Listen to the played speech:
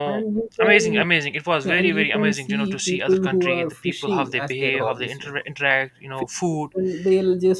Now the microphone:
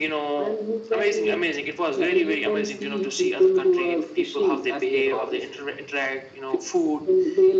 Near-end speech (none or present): none